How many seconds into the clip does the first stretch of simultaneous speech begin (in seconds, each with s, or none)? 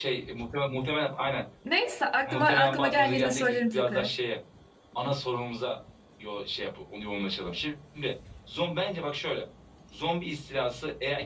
2.2 s